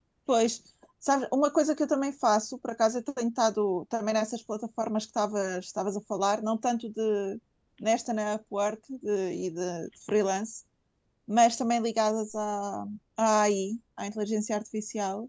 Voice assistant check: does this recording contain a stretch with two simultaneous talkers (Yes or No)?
No